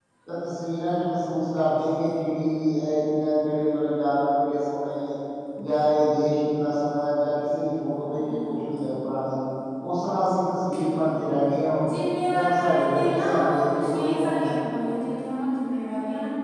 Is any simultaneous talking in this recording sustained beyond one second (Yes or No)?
Yes